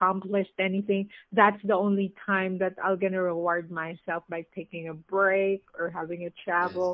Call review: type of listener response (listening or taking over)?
listening